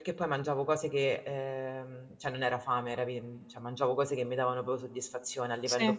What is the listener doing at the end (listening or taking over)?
listening